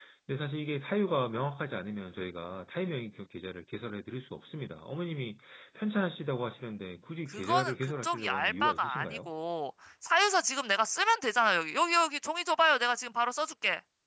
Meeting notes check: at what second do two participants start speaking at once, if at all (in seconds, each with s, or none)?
7.3 s